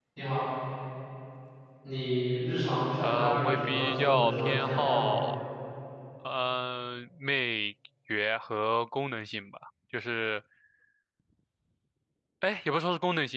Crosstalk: present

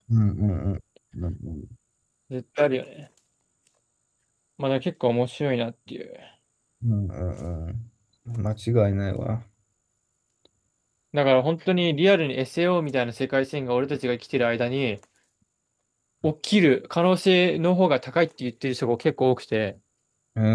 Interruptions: none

